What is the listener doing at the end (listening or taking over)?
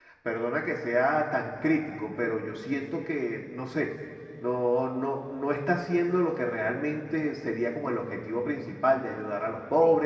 taking over